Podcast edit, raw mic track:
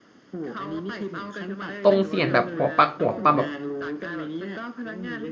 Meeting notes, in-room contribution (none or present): present